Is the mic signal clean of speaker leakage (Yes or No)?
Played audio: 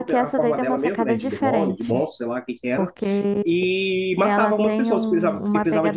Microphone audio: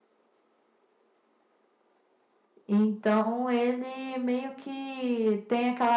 Yes